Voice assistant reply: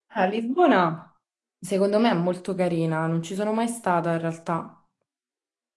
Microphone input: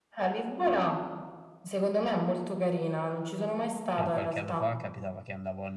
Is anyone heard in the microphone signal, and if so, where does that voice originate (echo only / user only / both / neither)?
both